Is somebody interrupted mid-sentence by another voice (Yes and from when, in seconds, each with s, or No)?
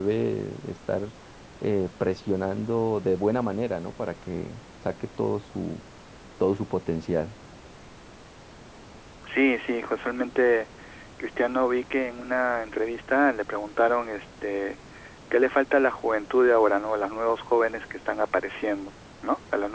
No